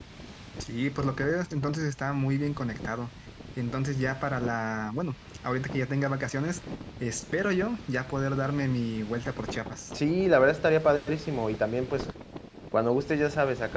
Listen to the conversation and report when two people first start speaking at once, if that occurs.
none

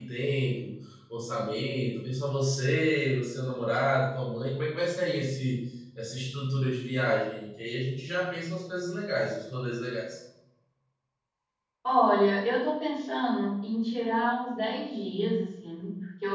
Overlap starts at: none

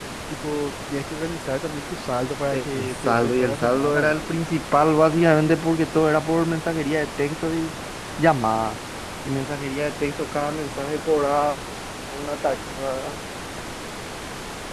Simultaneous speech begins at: 2.5 s

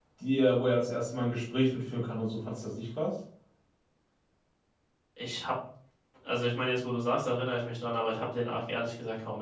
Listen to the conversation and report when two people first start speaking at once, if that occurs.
none

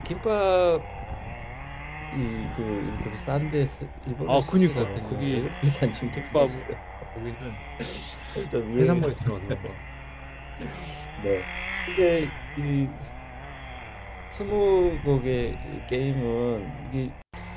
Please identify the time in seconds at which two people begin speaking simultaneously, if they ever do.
4.3 s

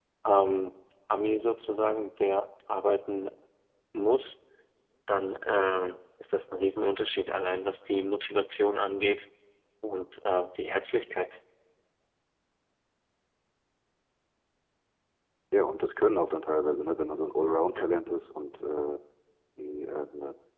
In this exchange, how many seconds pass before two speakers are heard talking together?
none

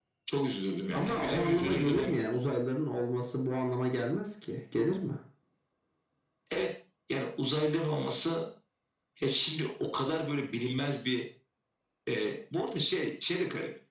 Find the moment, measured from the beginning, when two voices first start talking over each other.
0.9 s

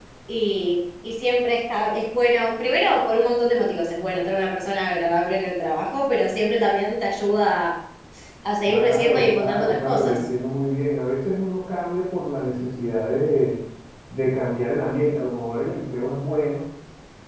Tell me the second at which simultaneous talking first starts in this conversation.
8.7 s

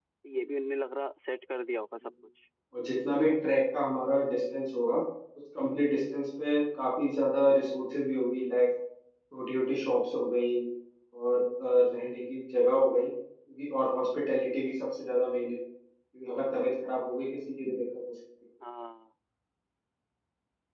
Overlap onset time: none

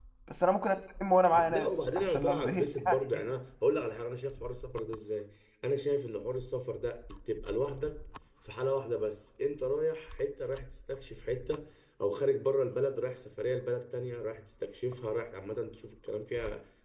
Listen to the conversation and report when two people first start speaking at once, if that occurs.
1.2 s

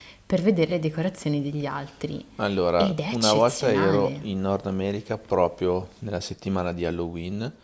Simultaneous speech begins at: 2.8 s

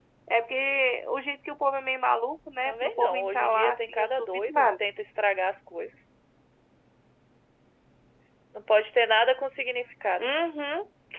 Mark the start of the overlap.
2.6 s

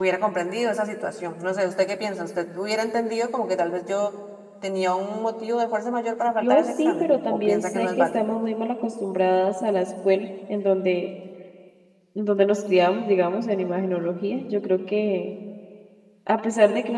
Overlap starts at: 6.4 s

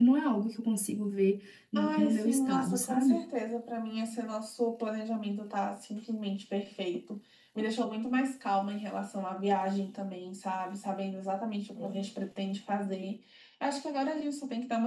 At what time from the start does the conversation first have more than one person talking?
1.8 s

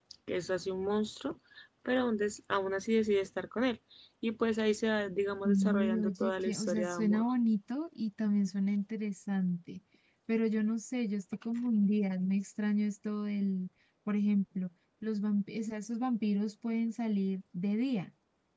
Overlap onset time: 5.8 s

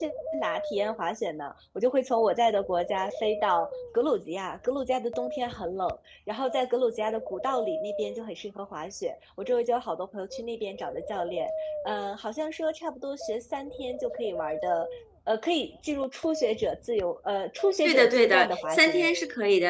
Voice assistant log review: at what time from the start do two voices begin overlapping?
17.8 s

